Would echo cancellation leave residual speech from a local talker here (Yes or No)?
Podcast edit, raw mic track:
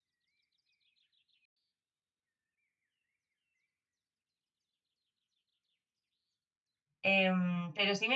Yes